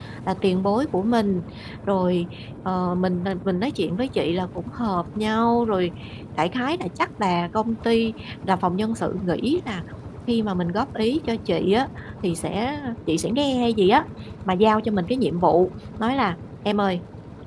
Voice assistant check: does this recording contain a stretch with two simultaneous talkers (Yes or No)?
No